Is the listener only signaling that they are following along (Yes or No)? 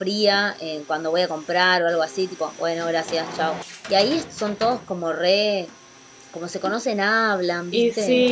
No